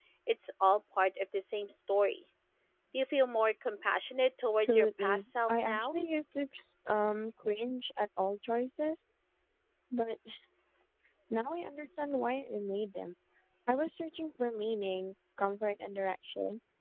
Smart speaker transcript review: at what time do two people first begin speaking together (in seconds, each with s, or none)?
4.5 s